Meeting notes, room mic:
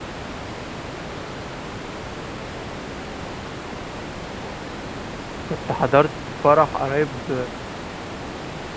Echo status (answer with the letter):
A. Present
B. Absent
B